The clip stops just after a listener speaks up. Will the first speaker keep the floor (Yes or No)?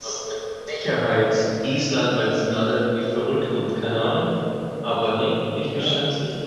No